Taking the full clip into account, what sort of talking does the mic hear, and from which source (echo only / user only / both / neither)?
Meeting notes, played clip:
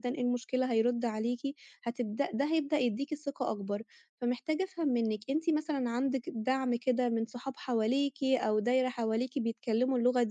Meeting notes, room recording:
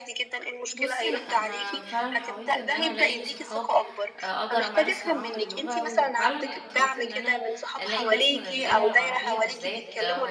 both